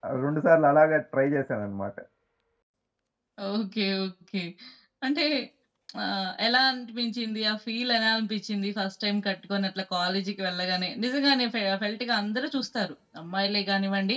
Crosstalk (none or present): none